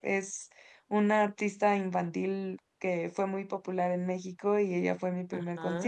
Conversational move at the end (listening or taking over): listening